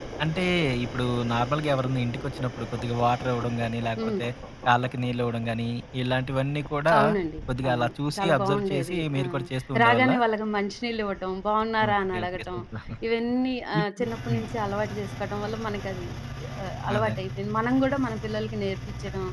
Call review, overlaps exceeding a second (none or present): present